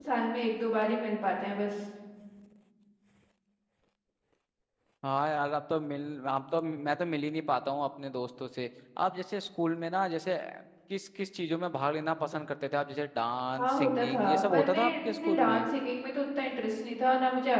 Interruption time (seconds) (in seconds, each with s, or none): 13.6 s